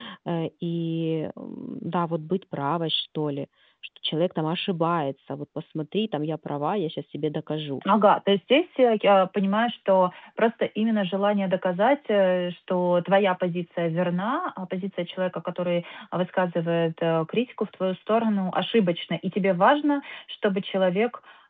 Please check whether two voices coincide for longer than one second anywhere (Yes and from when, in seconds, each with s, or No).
No